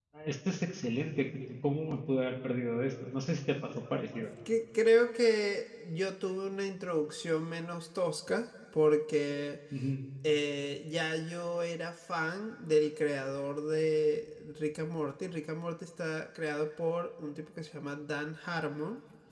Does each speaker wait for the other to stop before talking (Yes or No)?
Yes